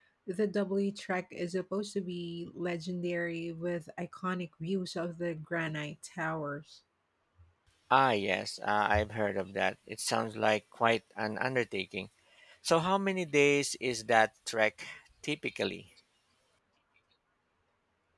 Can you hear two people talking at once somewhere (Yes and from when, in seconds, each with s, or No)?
No